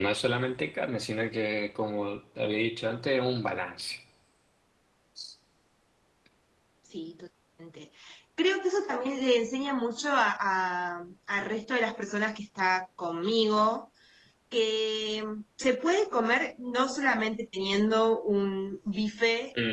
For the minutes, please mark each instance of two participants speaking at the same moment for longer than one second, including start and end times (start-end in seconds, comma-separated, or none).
none